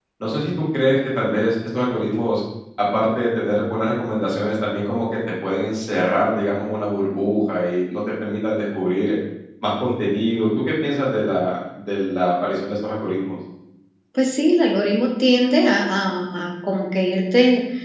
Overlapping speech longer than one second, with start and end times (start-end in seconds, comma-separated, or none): none